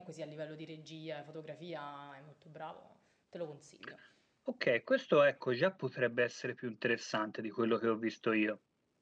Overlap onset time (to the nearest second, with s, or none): none